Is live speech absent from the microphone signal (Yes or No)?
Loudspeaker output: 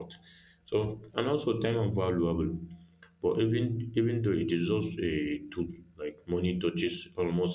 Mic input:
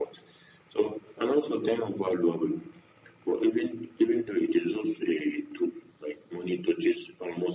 Yes